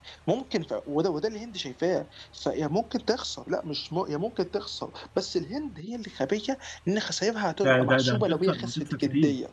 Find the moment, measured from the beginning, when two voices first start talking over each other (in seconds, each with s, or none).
7.6 s